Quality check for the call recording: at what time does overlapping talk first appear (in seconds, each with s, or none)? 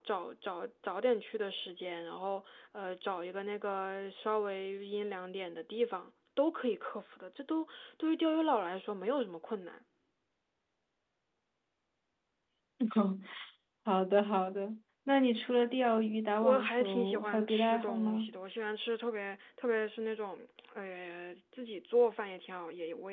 16.4 s